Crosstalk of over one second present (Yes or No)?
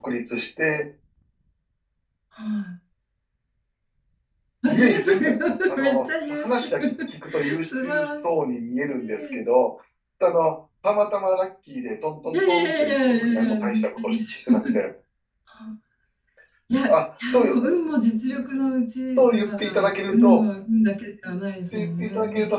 Yes